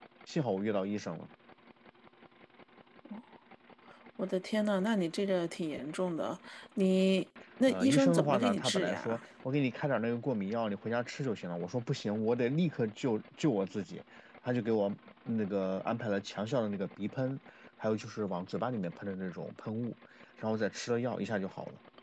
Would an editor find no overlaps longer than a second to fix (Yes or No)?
No